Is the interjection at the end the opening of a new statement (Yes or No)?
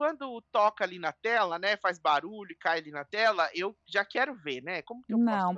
Yes